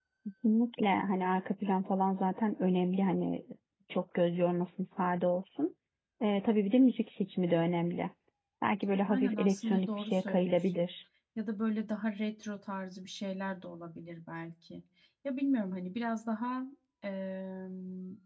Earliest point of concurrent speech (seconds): 9 s

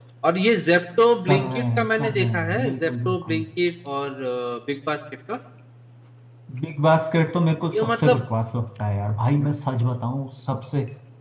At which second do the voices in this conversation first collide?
1 s

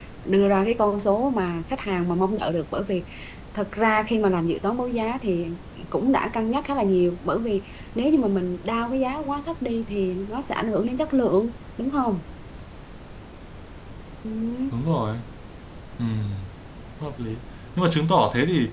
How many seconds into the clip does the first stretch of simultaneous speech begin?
none

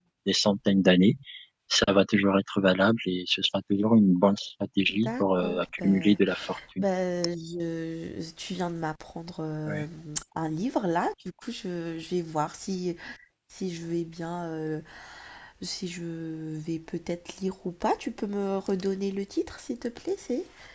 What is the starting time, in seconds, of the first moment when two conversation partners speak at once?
5 s

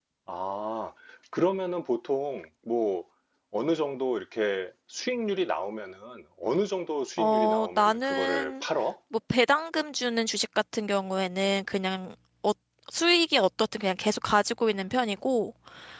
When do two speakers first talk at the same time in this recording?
7 s

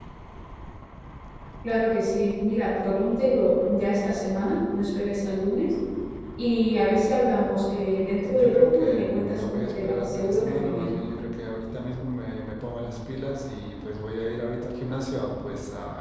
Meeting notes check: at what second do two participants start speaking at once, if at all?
8 s

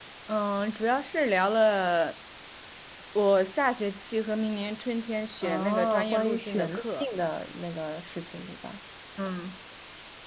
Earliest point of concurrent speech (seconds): 5 s

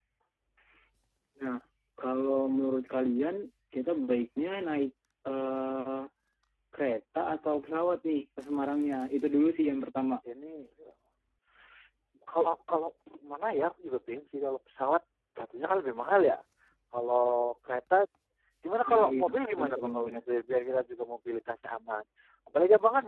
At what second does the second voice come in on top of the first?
19 s

